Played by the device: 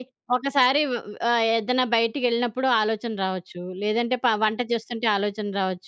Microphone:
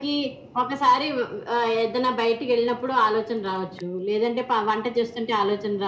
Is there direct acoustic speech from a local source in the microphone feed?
No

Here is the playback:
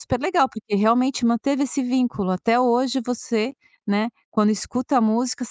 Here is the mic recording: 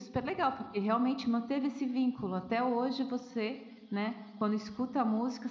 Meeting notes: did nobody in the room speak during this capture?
Yes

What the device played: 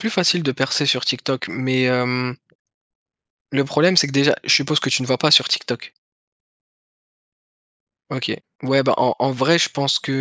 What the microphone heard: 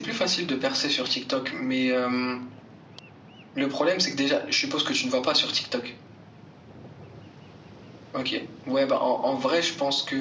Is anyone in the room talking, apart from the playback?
No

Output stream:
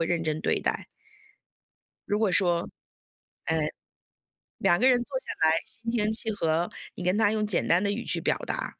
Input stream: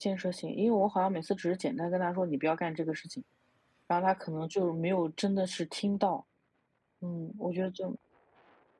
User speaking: Yes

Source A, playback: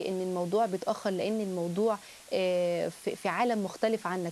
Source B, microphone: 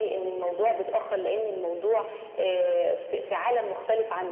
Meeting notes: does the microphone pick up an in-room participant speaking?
No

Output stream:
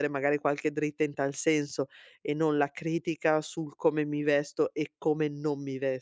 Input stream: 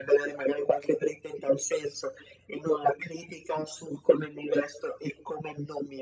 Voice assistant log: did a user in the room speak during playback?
No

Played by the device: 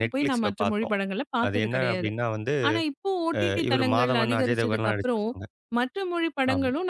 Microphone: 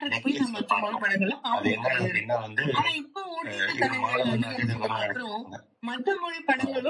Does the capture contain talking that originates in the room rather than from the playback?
No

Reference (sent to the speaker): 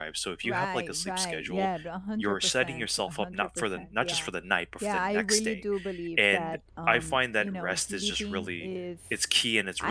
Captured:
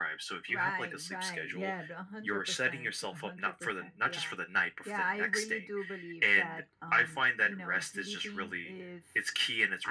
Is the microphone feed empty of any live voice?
Yes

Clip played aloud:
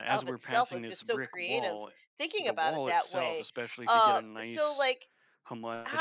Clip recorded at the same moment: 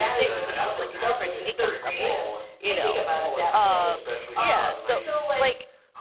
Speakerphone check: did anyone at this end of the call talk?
Yes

